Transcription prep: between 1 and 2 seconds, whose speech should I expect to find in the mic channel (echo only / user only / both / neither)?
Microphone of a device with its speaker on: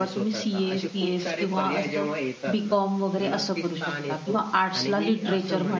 both